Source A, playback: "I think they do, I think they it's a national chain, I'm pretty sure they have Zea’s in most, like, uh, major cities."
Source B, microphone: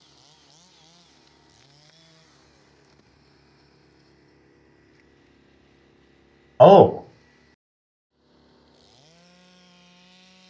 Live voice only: Oh.

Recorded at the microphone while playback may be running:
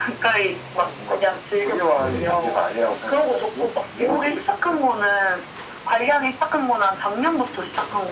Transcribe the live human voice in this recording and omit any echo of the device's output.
네.

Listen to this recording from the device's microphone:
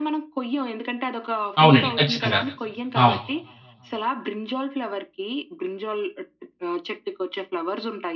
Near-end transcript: అవునండి. ఖచ్చితంగా. అవును.

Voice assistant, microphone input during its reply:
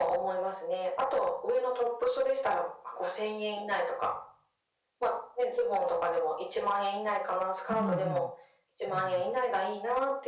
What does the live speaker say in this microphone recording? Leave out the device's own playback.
うんうんうん。なるほど。

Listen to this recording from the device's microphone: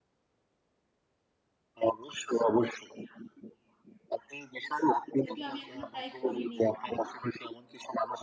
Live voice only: যদিও আমি এখনো ট্রাই করিনি কখনো।

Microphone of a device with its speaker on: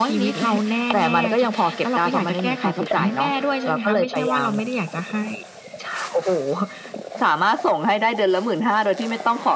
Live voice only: none

